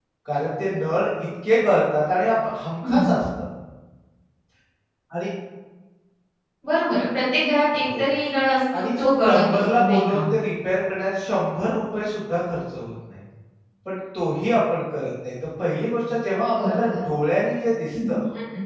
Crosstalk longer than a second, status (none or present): present